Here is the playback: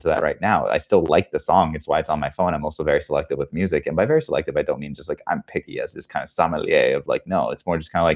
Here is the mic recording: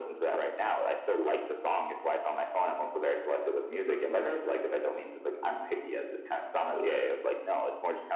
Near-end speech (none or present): none